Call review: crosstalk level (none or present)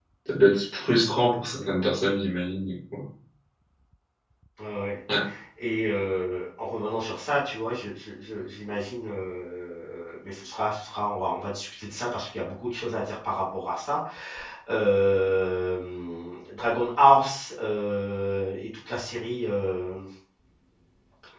none